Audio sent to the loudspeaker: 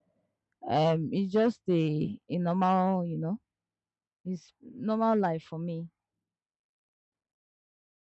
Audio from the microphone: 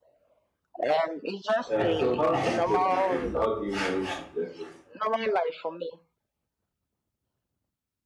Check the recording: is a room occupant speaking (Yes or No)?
Yes